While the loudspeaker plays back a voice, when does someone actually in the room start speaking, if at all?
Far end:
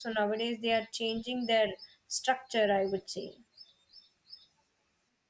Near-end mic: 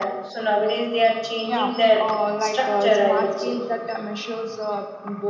1.4 s

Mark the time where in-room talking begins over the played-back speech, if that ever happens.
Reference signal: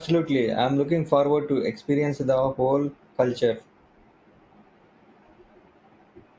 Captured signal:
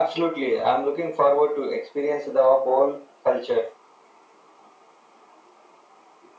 none

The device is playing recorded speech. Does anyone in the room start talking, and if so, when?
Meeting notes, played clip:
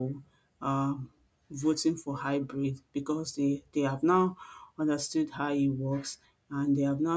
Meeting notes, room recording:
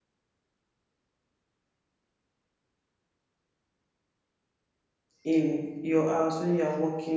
5.2 s

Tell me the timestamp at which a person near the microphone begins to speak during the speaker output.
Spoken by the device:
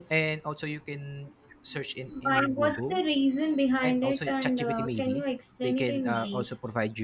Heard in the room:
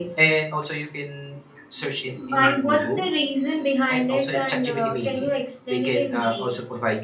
none

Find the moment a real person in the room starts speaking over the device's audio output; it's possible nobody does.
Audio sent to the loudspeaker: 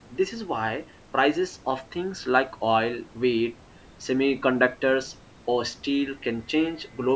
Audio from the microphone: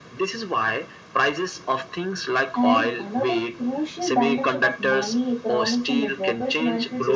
2.5 s

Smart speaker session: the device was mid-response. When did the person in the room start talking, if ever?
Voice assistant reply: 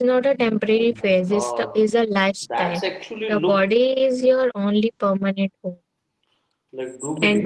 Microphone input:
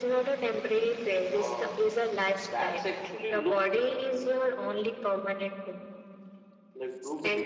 none

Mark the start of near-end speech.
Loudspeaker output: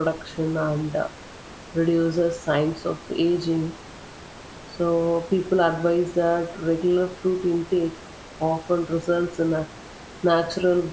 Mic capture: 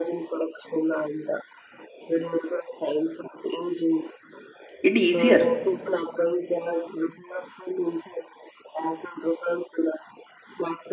4.8 s

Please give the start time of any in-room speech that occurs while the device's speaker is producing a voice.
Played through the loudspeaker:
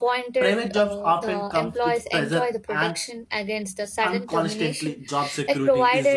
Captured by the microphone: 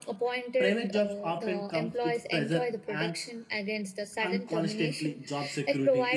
none

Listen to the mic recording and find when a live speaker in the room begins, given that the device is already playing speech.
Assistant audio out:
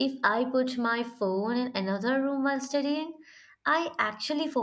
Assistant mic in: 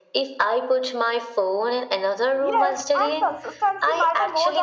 2.4 s

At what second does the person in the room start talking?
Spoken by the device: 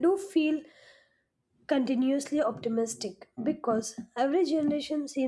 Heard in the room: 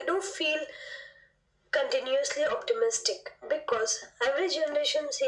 none

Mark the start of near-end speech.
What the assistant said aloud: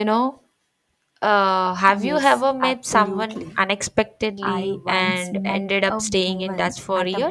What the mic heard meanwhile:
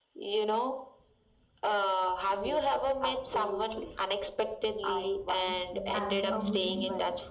5.9 s

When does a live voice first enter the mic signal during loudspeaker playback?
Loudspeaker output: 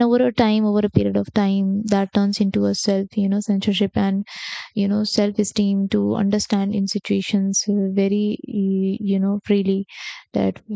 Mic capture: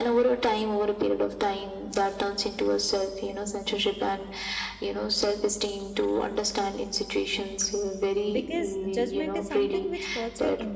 8.3 s

